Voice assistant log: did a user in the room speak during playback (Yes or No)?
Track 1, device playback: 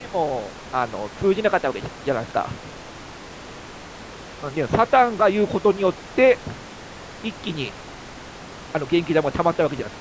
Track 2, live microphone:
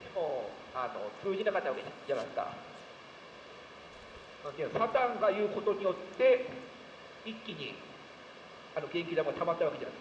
No